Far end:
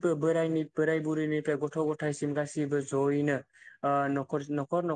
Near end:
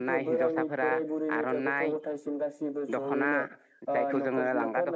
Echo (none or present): present